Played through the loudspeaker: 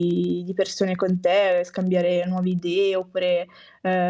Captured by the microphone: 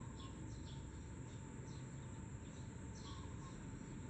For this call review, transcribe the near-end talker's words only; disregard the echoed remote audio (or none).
none